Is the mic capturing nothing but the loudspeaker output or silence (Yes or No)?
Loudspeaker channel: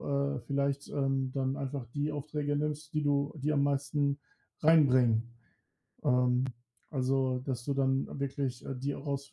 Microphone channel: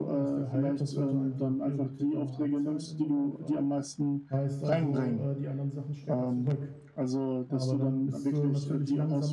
No